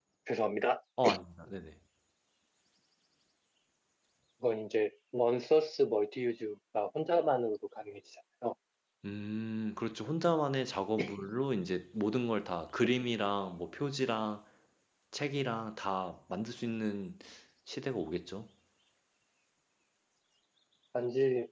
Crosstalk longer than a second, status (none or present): none